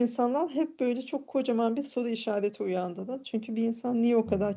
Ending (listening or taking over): listening